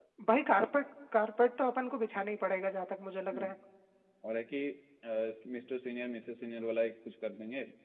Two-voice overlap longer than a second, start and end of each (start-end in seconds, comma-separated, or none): none